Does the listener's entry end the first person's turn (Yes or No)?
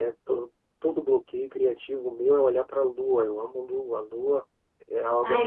Yes